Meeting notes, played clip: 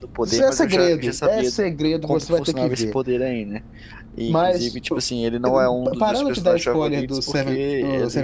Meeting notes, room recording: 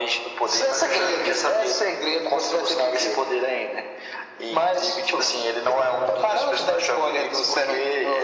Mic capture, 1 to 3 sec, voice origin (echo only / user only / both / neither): echo only